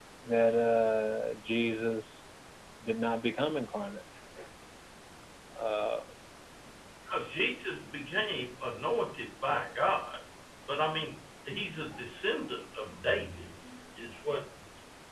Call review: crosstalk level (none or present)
none